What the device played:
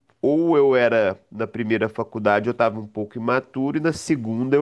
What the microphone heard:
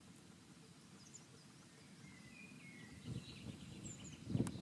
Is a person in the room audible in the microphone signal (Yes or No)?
No